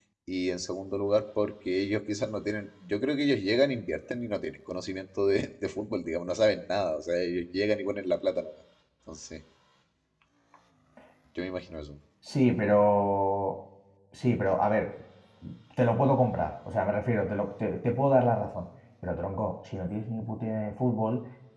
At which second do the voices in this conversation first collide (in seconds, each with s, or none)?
none